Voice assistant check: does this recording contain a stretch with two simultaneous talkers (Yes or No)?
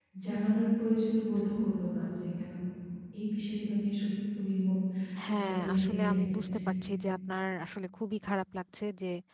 Yes